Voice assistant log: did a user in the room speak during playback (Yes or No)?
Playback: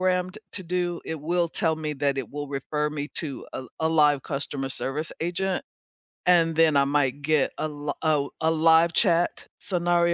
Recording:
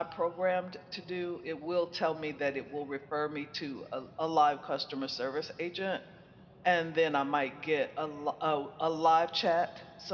No